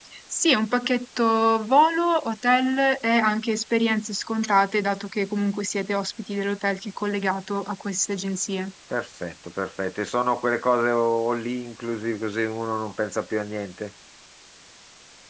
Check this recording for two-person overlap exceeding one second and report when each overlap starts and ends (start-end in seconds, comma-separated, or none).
none